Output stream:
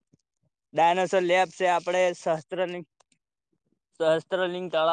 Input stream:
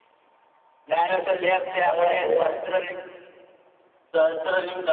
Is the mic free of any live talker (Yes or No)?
No